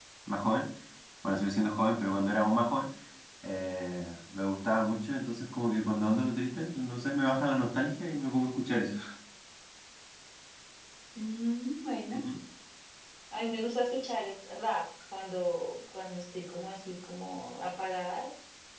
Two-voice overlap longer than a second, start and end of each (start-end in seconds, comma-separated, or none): none